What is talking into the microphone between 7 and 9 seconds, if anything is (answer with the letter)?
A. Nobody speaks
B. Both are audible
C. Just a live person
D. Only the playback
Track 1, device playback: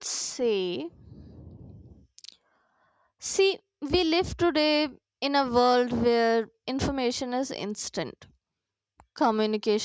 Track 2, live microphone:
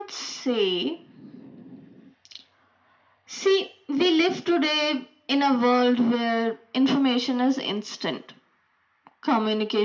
D